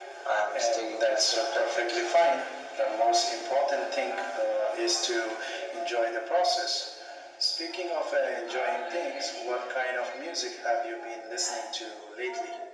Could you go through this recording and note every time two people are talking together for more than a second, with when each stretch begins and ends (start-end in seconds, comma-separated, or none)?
0.5-1.9